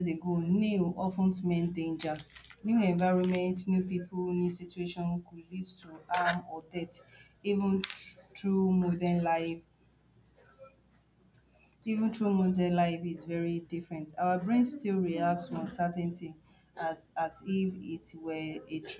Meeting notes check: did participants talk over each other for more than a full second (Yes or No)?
No